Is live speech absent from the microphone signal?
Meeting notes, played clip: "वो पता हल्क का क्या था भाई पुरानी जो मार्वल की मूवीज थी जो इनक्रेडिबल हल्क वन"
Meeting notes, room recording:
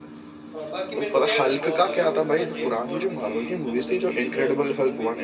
No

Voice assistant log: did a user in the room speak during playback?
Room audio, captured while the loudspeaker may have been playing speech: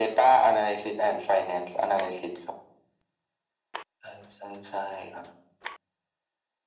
No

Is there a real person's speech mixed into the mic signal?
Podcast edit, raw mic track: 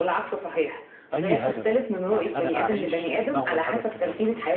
Yes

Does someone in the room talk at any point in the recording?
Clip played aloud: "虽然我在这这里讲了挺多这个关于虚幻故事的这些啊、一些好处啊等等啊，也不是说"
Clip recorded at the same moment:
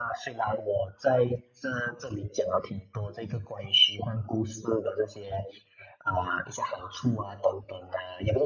No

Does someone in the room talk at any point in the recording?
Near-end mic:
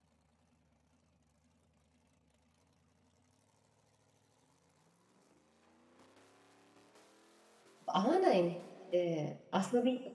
Yes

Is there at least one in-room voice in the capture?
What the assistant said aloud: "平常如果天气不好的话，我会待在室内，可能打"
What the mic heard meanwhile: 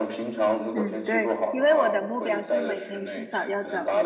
Yes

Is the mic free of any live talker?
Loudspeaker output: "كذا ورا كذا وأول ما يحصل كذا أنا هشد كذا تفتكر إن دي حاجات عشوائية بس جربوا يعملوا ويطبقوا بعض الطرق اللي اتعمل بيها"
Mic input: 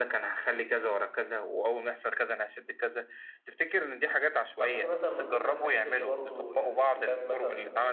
No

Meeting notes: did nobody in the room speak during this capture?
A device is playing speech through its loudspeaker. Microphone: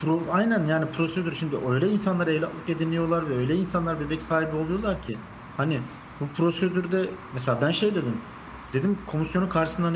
No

